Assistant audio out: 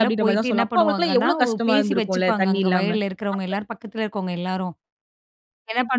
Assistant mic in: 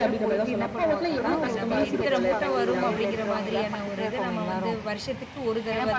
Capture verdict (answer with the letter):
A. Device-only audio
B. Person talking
B